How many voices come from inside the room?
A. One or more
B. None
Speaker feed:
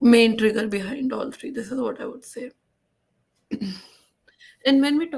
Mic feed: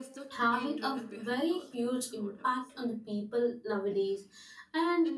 A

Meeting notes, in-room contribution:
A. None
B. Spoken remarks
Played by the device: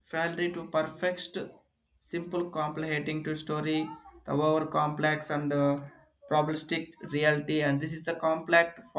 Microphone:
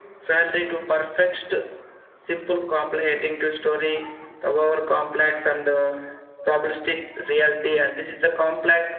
A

